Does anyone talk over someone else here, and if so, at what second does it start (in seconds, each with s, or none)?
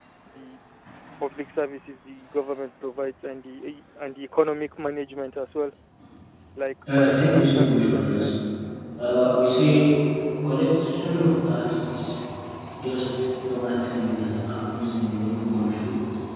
6.9 s